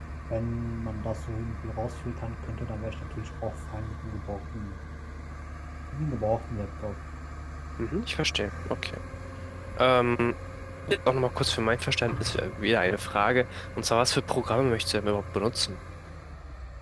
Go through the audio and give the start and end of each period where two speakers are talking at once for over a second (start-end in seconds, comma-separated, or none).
none